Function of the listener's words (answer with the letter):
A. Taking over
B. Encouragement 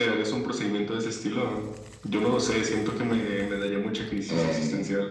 A